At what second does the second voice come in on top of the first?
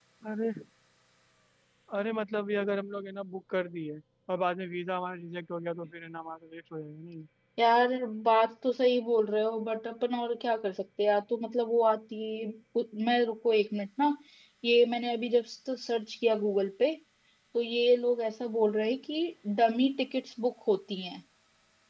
none

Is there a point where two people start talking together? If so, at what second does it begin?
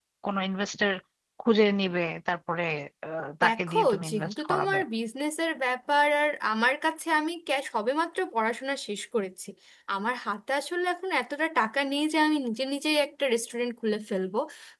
3.4 s

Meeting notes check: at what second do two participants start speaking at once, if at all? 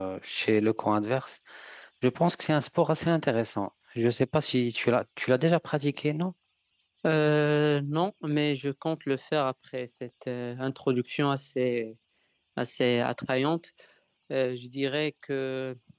none

